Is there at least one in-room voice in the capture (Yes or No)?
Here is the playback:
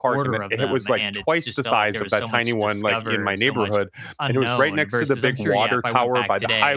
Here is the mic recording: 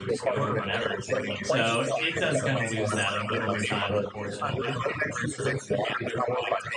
Yes